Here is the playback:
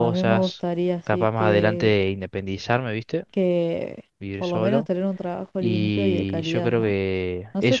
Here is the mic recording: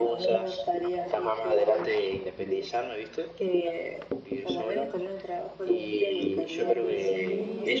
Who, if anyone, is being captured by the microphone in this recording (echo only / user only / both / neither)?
both